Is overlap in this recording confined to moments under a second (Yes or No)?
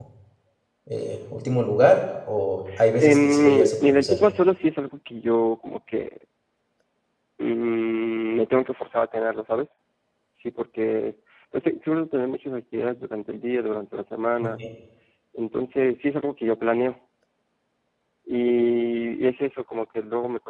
No